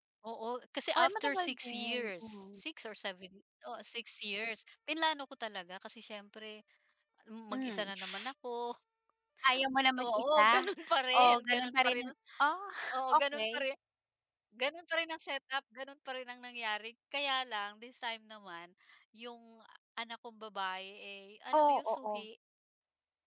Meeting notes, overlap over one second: present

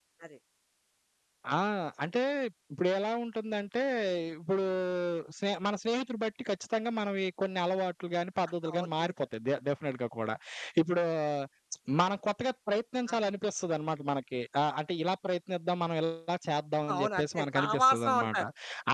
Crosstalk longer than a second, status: present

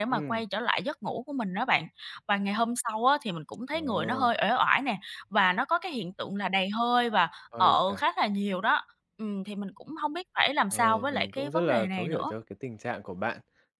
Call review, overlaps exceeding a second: present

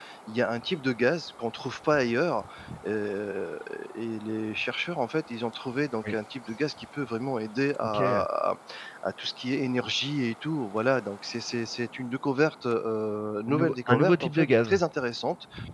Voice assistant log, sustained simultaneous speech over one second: present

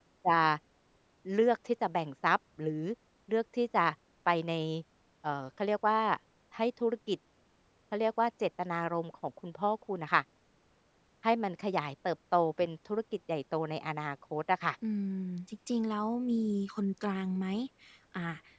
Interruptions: none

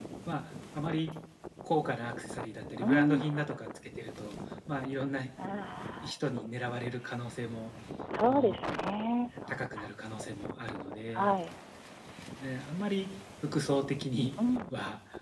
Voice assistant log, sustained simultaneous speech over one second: none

